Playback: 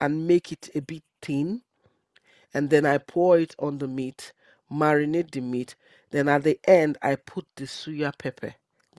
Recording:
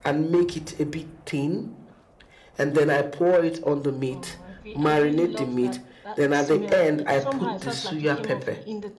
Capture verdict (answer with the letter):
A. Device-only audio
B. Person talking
B